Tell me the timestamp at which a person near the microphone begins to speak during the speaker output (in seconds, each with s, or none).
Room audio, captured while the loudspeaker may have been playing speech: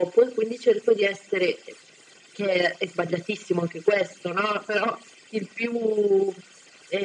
none